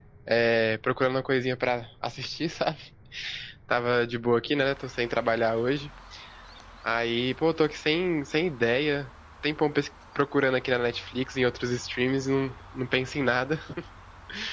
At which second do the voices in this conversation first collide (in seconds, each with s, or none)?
none